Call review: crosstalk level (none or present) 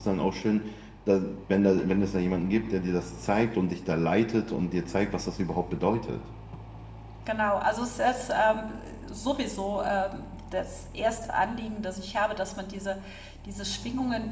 none